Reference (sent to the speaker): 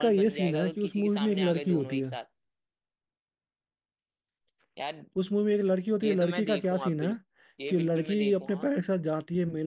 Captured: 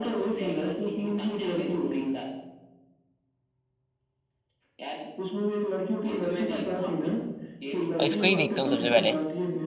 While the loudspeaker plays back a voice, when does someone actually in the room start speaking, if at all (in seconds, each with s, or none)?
8.0 s